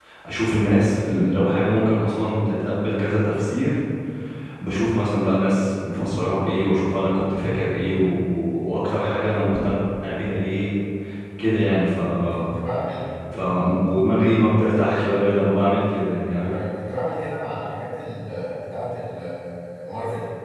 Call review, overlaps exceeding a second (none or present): none